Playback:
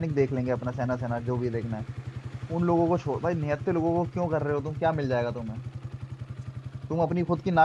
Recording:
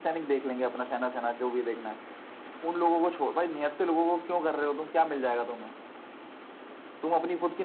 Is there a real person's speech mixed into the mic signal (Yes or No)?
No